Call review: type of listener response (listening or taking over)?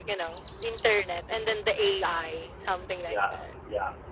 taking over